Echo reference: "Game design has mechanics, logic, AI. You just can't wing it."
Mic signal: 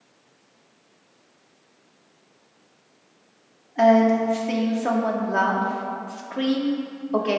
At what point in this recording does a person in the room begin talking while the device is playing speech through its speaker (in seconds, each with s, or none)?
3.8 s